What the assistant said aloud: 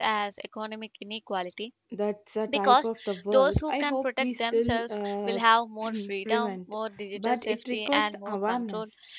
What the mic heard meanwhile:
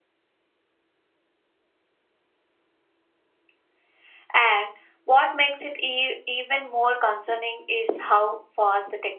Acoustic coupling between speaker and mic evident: No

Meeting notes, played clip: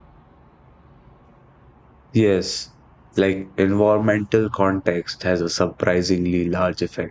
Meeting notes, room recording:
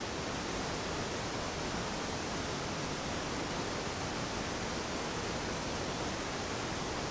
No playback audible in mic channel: Yes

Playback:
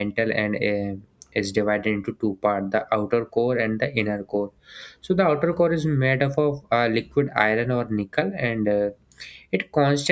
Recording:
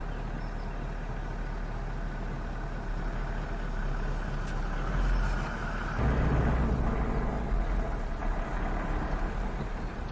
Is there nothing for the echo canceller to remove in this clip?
Yes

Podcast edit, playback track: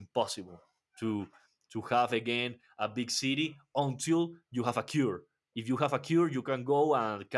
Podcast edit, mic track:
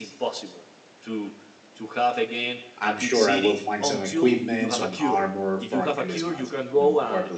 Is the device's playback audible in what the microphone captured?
Yes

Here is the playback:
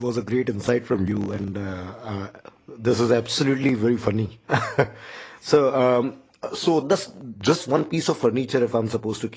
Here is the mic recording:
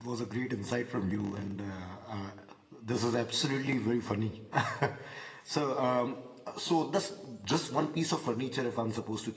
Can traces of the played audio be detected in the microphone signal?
Yes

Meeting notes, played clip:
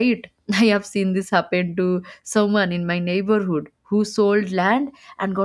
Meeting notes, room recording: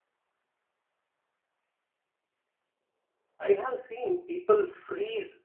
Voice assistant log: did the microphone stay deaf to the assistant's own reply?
Yes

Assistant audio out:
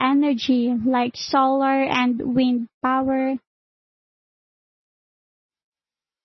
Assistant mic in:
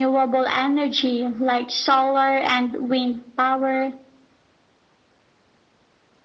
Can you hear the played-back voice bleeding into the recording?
Yes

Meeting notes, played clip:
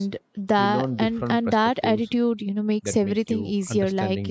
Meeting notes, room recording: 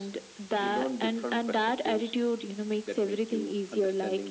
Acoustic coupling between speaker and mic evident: Yes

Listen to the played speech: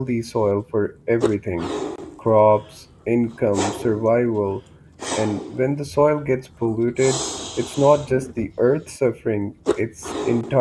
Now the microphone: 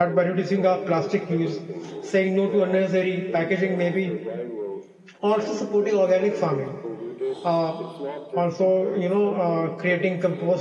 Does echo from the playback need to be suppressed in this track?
Yes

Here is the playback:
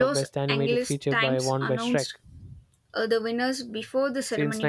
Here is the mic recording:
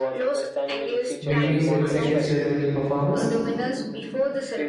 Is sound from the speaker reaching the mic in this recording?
Yes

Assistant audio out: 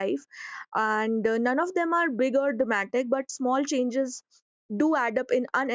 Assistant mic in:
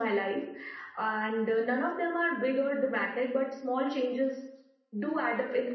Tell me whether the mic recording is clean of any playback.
No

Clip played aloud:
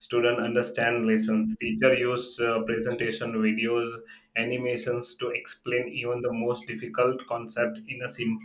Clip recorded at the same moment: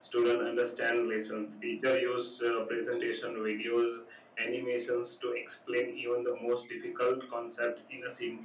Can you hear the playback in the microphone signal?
Yes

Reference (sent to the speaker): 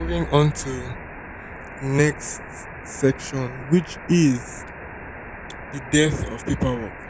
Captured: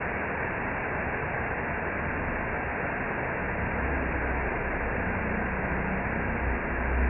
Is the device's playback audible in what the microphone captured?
No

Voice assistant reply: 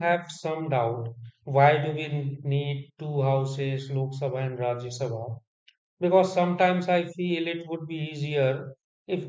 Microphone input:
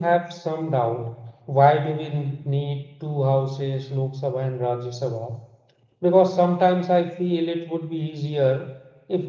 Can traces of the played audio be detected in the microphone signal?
Yes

